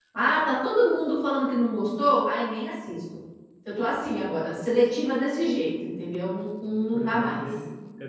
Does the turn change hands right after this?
Yes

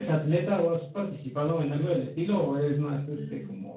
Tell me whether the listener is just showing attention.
No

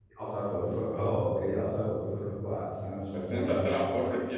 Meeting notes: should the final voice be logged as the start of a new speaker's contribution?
Yes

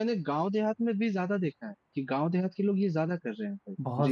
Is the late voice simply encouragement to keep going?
No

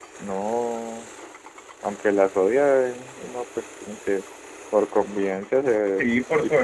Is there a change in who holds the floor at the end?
Yes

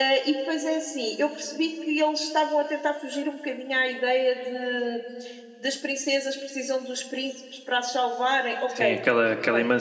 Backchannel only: No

